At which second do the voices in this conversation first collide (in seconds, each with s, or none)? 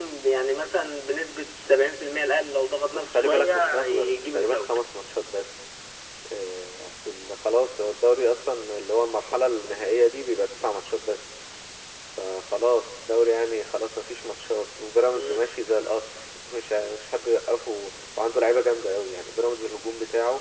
2.9 s